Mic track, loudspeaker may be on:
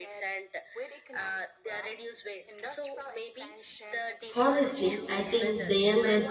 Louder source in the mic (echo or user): user